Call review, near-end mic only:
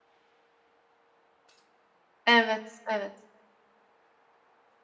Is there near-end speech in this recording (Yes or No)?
Yes